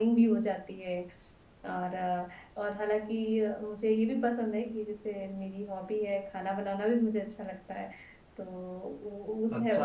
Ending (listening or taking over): taking over